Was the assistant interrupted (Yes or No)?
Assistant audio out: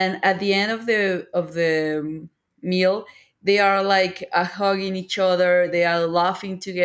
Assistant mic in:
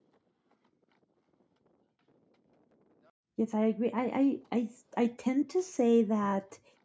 Yes